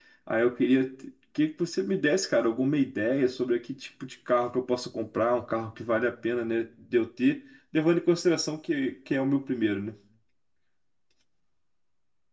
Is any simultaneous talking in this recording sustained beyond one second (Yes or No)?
No